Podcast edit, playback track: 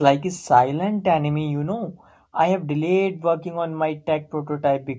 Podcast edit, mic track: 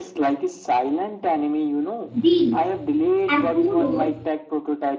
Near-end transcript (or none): Deal. And who knows,